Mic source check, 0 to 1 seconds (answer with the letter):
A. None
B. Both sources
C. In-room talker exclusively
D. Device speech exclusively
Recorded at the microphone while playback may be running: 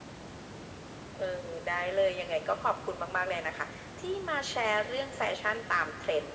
A